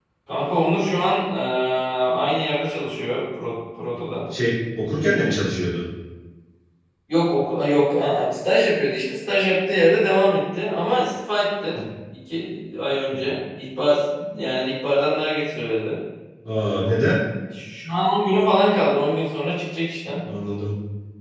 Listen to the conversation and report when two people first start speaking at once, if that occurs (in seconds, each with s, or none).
none